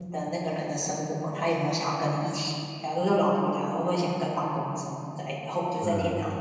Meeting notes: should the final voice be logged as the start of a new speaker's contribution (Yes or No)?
No